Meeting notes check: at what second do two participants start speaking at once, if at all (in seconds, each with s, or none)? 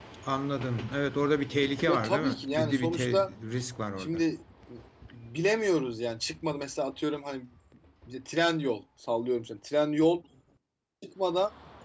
1.9 s